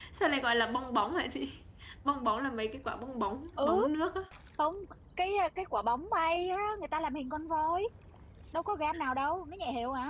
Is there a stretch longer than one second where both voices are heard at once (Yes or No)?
No